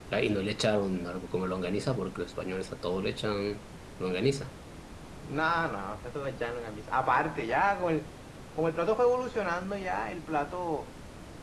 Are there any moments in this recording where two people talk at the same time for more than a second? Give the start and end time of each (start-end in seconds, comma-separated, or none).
none